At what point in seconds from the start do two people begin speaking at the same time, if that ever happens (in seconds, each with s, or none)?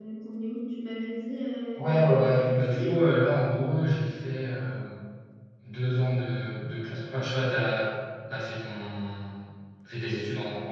1.8 s